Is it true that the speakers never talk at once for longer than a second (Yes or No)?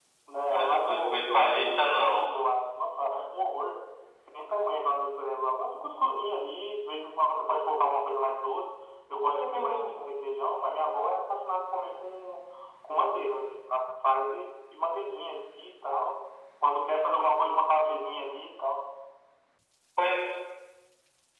No